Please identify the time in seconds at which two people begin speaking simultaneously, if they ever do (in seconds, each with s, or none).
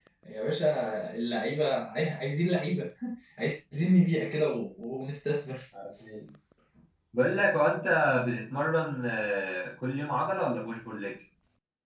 none